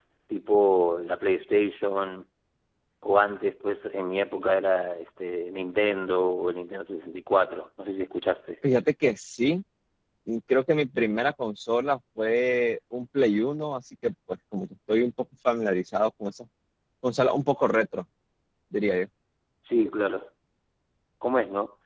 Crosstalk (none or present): none